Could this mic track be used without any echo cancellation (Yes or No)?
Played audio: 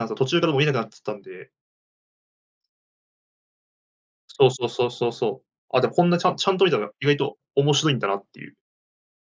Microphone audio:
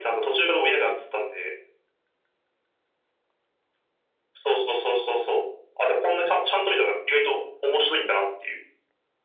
No